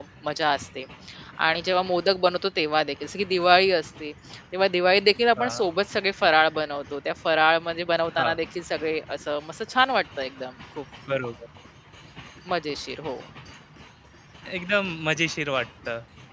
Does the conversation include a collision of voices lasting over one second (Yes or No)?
No